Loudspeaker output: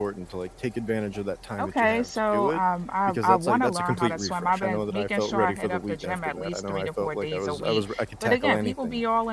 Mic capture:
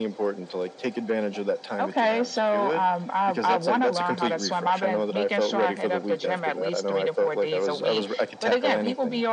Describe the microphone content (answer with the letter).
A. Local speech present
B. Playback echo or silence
B